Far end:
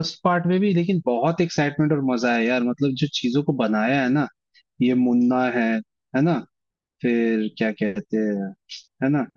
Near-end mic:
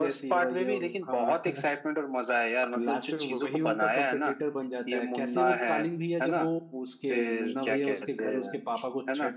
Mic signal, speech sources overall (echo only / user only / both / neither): both